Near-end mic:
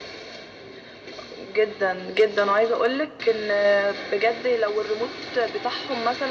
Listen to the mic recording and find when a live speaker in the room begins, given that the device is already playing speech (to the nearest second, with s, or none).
none